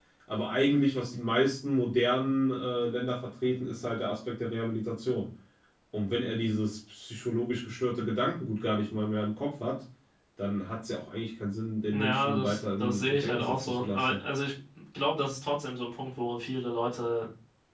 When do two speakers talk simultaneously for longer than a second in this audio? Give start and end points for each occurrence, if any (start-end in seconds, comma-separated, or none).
11.9-14.2